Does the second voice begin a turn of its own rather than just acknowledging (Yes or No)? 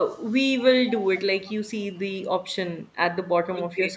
Yes